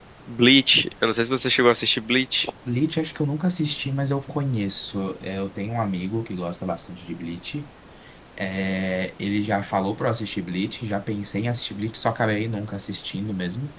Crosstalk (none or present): none